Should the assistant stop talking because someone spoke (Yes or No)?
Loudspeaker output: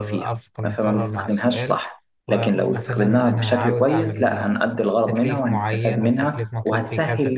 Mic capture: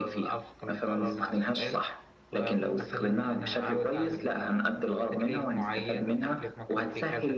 No